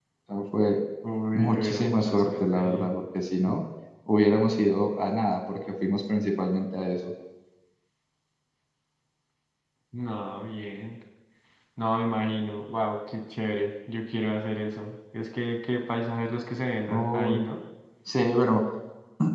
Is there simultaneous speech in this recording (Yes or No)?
Yes